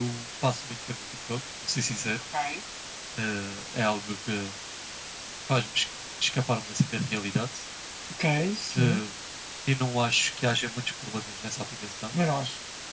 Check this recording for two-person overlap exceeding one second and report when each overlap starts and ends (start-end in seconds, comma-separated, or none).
none